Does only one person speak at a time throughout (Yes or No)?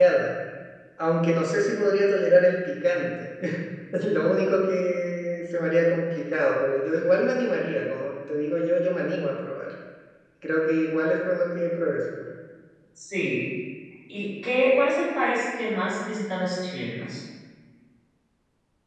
Yes